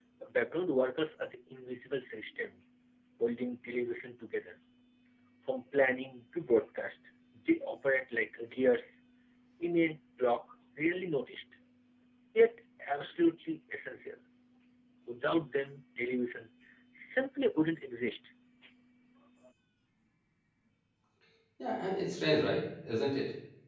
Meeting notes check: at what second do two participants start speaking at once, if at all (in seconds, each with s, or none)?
none